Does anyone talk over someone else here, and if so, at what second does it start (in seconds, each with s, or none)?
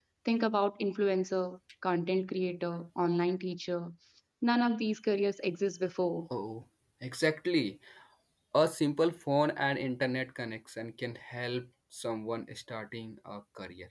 none